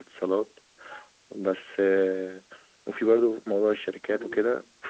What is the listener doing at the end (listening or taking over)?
listening